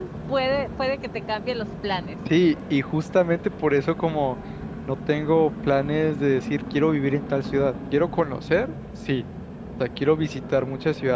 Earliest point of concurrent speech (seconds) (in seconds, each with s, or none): none